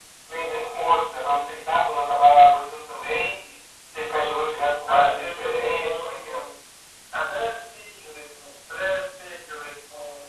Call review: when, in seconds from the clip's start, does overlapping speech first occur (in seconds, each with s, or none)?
4.9 s